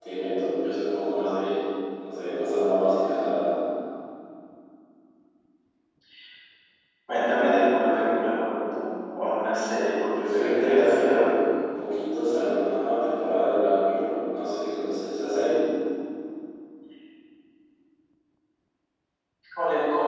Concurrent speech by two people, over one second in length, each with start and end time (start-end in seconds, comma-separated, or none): 9.7-11.2